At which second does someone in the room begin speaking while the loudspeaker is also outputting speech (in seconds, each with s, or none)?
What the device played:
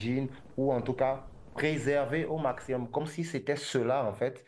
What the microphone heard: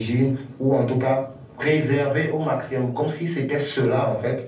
none